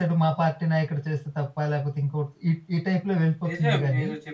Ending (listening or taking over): taking over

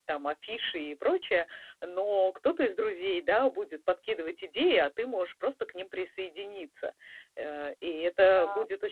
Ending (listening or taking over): listening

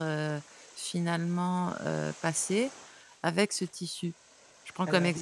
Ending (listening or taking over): listening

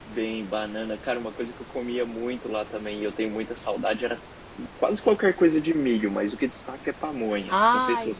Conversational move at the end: taking over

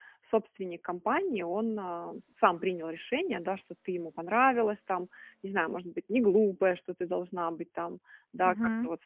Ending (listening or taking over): listening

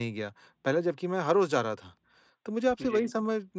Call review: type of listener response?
listening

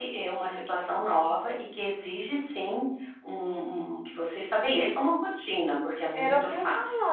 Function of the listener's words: taking over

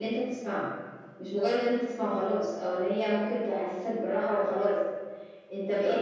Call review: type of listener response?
listening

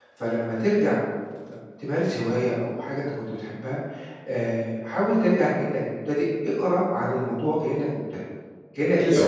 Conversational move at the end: taking over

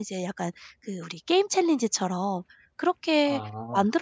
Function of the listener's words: listening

